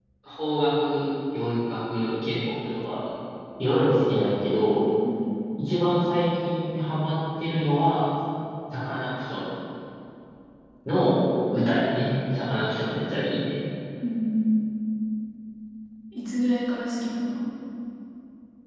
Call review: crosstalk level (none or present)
none